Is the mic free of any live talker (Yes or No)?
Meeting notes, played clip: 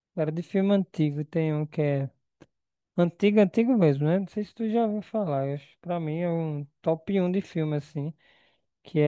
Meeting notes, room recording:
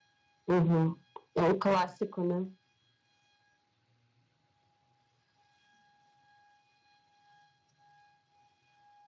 No